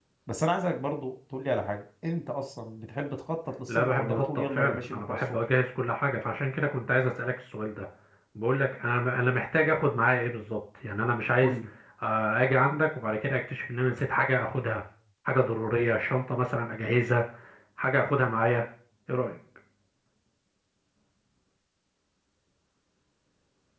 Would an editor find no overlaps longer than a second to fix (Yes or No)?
No